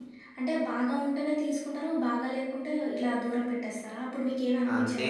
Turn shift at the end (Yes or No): Yes